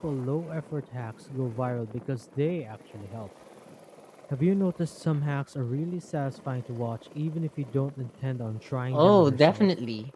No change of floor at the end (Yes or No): No